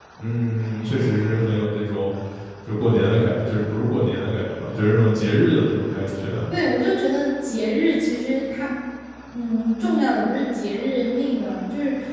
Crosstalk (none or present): none